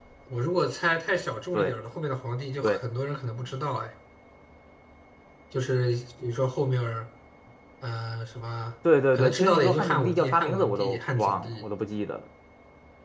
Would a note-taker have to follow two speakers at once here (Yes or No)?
Yes